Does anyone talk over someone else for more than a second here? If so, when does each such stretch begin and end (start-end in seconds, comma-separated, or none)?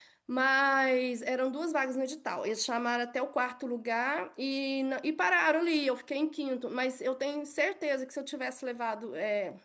none